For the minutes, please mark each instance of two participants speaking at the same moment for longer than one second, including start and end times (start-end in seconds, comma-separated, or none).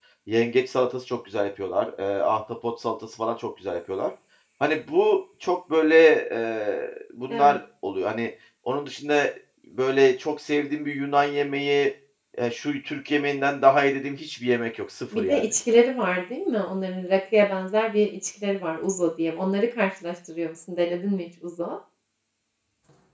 none